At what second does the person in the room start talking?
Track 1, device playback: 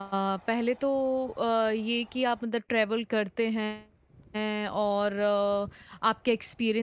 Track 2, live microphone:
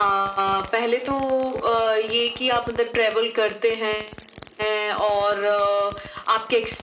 none

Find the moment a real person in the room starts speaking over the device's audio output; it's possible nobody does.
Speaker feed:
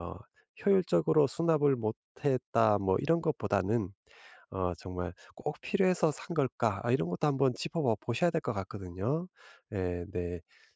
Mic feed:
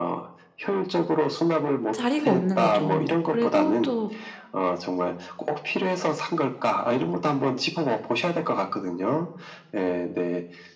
2 s

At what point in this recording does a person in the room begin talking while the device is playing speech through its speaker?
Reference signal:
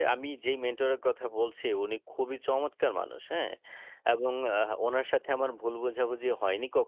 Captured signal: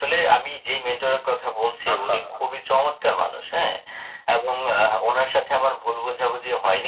2 s

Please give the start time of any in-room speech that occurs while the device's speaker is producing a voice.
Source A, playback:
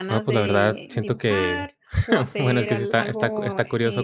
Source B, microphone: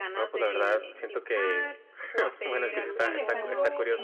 3 s

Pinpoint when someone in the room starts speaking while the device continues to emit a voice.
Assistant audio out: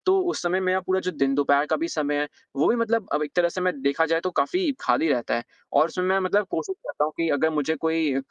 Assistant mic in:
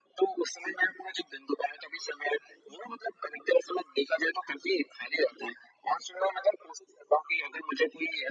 none

